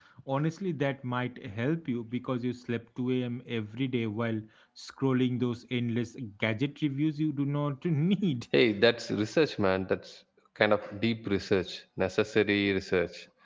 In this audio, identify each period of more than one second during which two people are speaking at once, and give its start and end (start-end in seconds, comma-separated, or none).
none